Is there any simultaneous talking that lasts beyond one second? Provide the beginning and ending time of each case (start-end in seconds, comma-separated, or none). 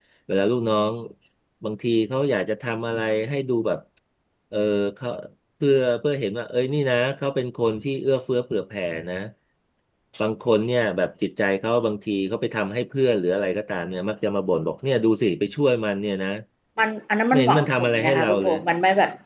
17.3-18.6